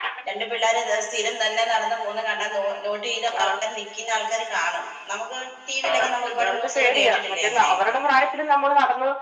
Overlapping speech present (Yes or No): Yes